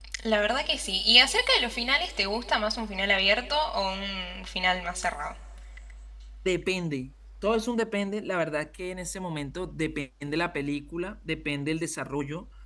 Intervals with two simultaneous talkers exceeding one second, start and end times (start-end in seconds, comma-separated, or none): none